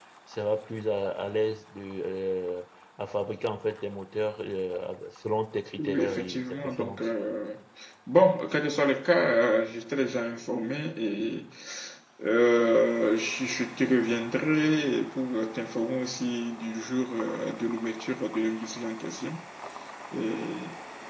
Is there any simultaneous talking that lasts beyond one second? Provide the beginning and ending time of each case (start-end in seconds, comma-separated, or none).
5.8-7.1